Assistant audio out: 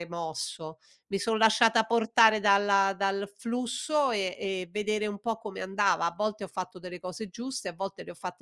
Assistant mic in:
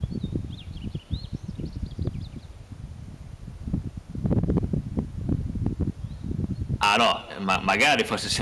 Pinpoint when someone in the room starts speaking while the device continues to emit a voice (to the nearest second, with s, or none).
7 s